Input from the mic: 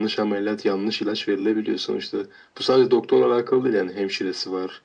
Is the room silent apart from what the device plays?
Yes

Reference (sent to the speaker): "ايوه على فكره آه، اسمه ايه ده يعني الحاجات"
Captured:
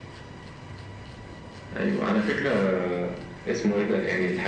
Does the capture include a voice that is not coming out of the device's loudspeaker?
No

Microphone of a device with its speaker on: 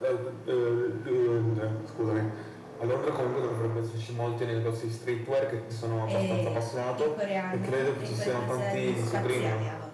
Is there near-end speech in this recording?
Yes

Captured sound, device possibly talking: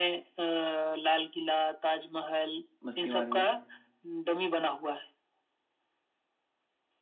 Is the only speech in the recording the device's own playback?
No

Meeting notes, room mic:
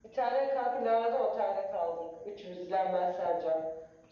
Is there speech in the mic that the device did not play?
No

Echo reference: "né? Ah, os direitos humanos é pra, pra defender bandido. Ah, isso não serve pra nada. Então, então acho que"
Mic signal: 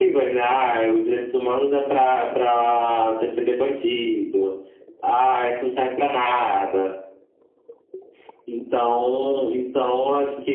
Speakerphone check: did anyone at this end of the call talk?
No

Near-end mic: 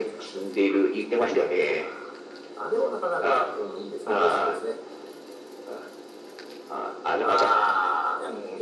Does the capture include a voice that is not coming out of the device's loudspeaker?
No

